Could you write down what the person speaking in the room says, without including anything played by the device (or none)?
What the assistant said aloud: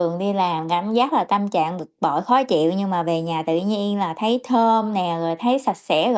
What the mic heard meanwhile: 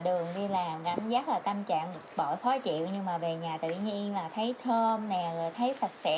none